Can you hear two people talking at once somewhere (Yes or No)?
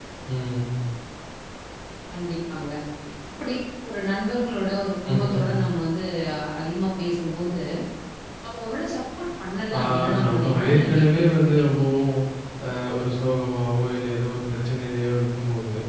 Yes